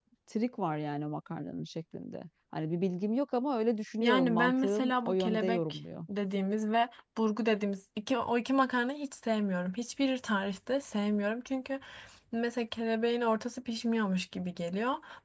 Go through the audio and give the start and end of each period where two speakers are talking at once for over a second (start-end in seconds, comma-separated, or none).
4.0-5.8